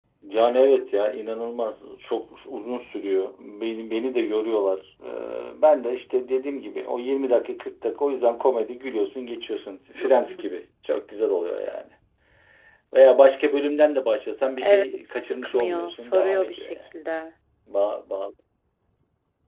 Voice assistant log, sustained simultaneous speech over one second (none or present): present